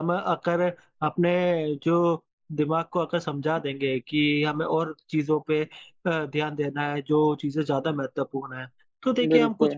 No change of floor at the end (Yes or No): Yes